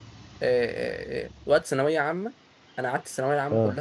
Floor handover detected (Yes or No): No